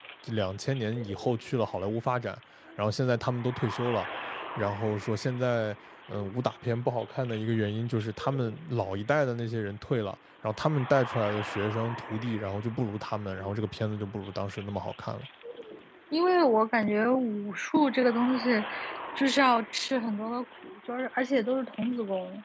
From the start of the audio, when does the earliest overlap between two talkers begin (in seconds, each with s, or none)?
none